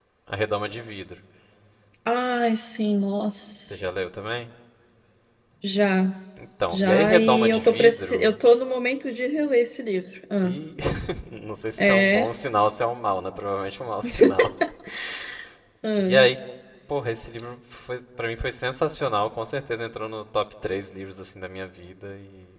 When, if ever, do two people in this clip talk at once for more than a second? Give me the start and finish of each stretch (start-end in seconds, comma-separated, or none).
6.7-8.3